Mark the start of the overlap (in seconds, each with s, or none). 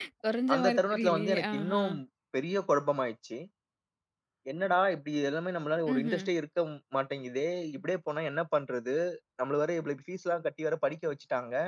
0.5 s